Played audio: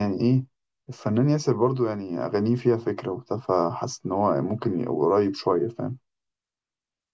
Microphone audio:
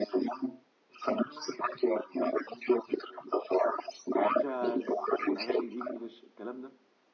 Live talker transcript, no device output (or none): الجاز الاغاني الانجليش الكلام ده